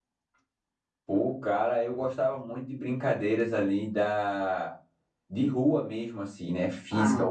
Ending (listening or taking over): listening